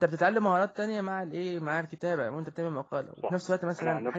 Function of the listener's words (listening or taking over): taking over